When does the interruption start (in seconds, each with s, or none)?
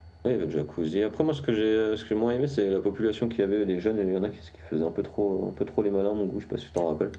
none